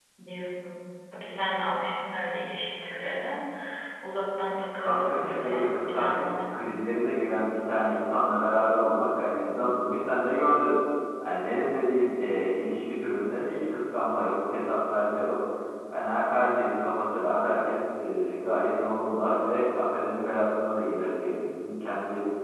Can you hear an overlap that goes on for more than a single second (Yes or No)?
Yes